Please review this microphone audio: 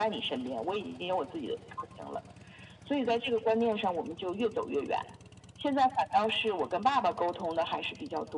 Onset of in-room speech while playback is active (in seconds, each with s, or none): none